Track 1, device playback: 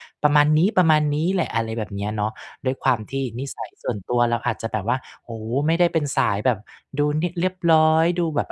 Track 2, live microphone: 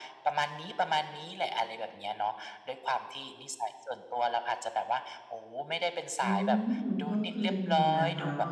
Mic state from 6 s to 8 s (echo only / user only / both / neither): both